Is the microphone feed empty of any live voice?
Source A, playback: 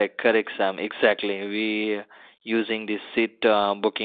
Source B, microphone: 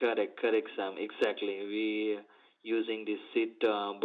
Yes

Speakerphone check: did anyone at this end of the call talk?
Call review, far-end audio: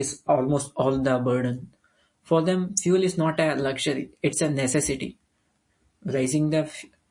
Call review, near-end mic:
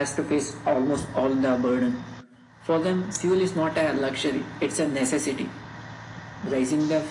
No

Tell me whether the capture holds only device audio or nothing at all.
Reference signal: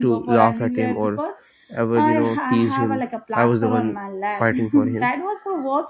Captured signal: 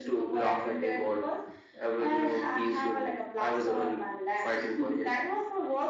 Yes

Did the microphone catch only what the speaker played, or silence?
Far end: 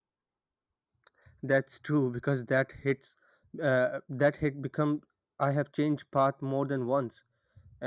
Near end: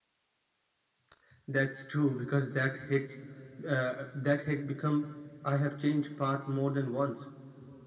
Yes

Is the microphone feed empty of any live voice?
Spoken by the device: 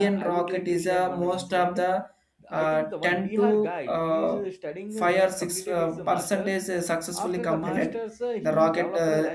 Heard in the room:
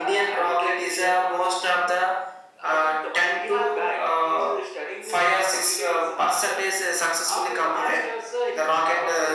Yes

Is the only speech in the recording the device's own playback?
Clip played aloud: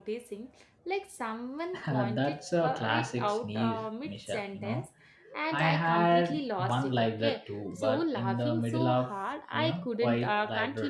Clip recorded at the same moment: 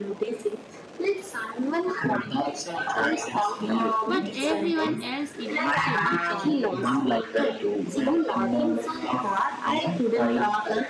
No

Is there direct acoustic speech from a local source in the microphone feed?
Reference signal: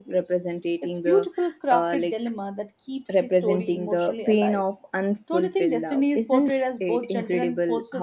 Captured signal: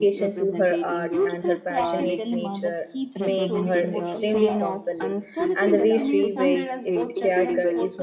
Yes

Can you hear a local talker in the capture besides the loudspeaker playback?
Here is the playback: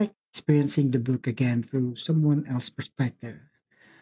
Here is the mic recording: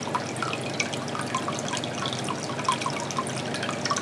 No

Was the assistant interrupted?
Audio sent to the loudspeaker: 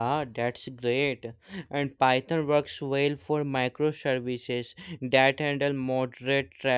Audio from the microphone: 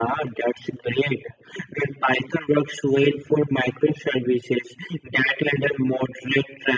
No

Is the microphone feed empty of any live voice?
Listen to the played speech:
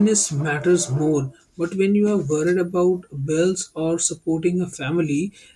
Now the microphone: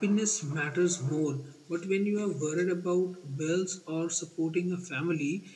Yes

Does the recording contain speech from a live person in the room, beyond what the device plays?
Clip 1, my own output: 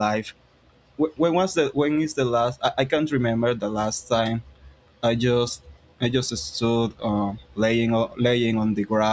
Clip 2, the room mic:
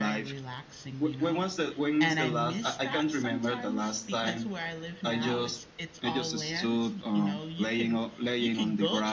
Yes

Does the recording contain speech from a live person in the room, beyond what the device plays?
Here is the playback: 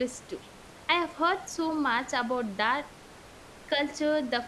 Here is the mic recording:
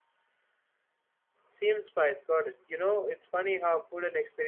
Yes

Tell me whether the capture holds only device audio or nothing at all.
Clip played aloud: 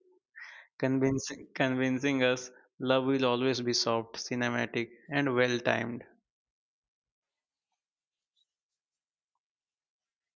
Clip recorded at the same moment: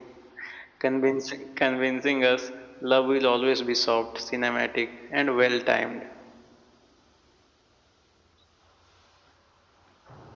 Yes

